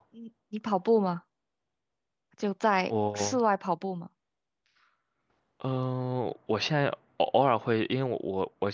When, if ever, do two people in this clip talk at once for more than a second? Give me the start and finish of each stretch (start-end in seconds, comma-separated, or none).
none